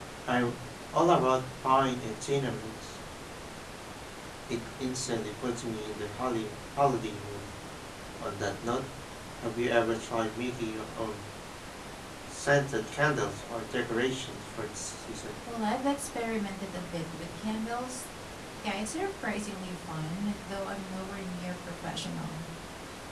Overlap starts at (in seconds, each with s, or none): none